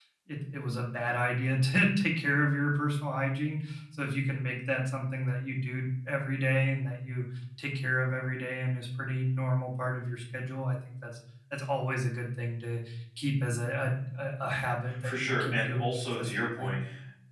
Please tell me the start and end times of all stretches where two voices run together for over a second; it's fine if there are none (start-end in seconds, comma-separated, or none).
15.0-16.7